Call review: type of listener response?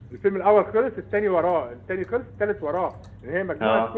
listening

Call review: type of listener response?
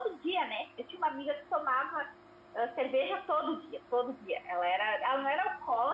listening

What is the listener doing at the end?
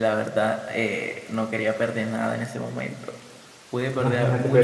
taking over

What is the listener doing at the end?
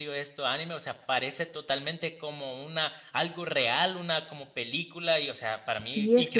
taking over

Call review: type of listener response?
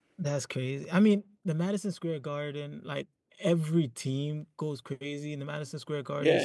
taking over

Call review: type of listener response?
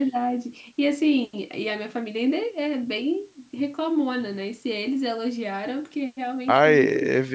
taking over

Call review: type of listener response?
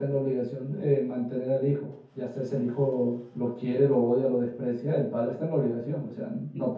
listening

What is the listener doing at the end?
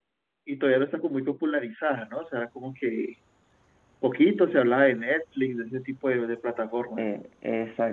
taking over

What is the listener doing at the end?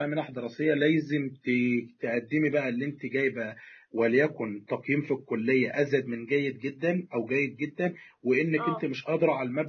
listening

